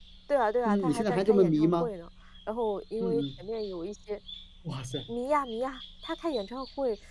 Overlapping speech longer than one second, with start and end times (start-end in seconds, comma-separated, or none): 0.6-1.9